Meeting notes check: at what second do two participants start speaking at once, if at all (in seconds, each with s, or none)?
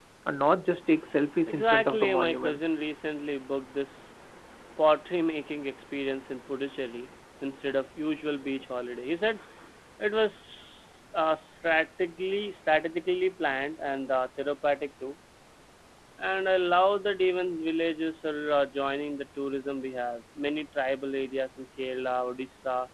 1.5 s